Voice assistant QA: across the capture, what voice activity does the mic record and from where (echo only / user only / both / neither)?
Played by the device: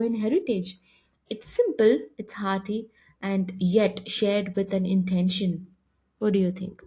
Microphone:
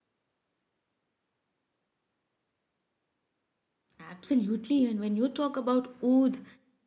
user only